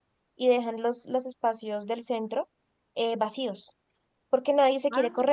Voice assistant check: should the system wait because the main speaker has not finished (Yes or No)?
Yes